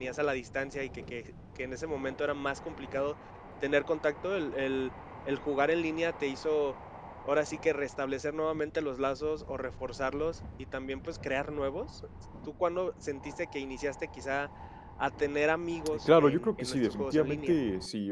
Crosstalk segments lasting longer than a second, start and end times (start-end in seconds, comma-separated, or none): 16.1-17.6